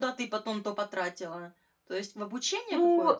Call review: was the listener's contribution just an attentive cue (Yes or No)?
No